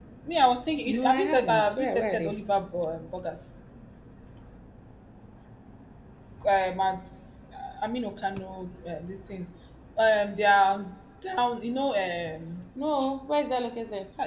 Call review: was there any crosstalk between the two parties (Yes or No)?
Yes